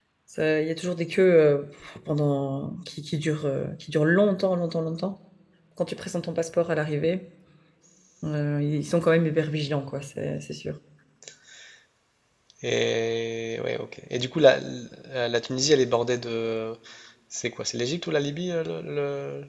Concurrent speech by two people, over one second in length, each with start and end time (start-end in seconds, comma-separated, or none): none